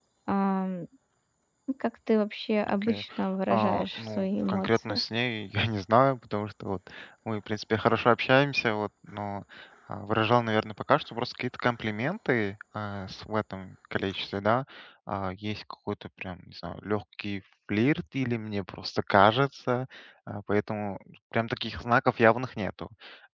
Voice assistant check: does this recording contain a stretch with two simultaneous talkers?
Yes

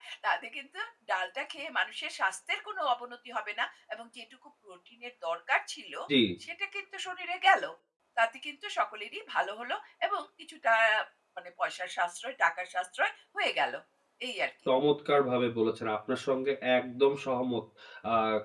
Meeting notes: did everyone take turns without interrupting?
Yes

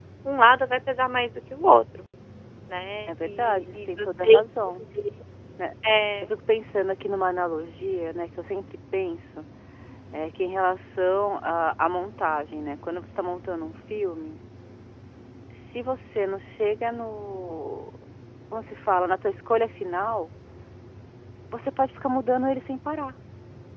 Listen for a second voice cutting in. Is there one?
Yes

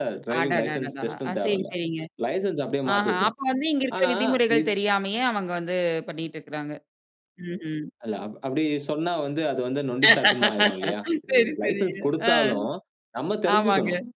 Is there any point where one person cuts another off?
Yes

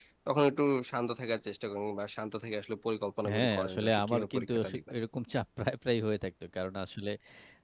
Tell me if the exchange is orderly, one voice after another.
No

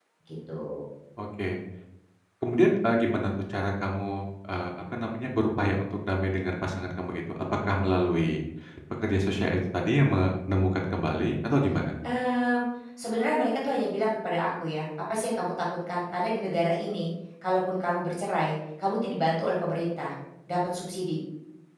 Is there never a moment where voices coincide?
Yes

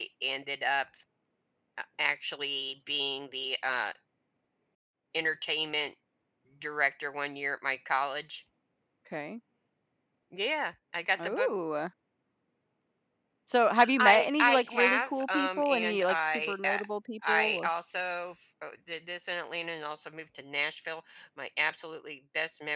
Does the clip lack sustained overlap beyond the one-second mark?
No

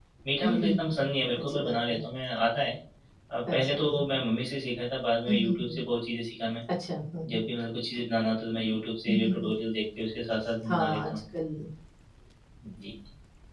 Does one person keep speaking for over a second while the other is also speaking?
Yes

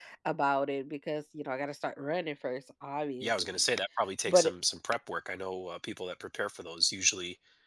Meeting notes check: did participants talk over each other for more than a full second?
No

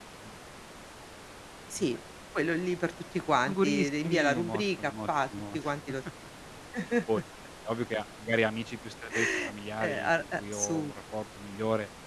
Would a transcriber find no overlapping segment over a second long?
No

